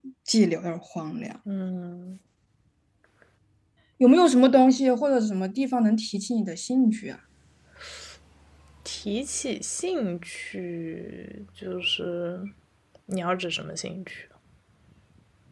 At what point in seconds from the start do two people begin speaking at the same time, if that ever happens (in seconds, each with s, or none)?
none